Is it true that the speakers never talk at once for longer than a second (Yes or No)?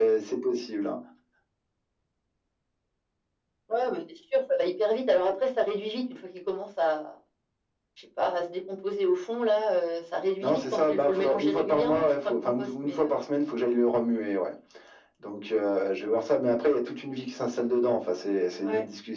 No